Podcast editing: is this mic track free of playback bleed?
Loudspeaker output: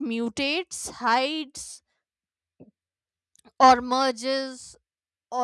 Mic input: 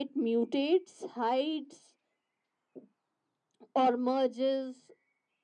No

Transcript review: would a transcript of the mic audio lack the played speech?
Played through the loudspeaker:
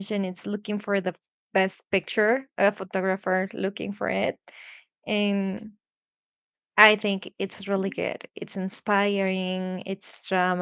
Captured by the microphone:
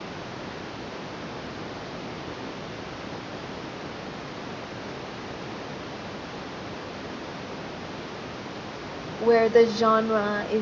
Yes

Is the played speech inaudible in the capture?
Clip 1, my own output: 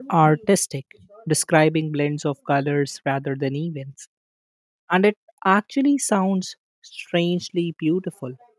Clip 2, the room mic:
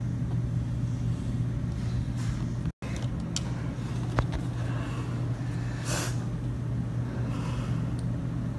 Yes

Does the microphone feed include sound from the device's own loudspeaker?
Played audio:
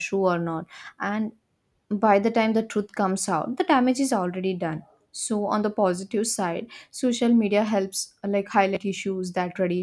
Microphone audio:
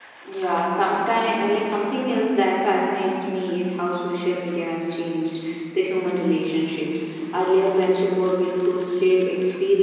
No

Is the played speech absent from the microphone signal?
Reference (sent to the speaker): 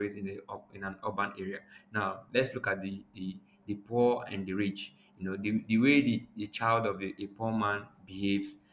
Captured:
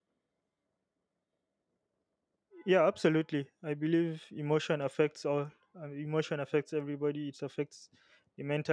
Yes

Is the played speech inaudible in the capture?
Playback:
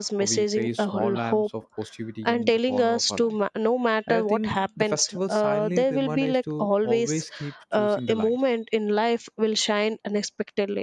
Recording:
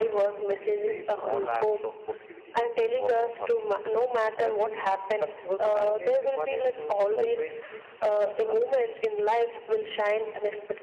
No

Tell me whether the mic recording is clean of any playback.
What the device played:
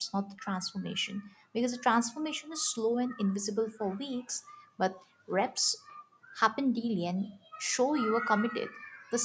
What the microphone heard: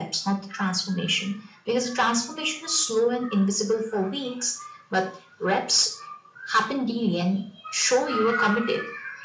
No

